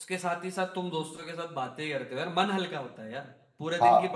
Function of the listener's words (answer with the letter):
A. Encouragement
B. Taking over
A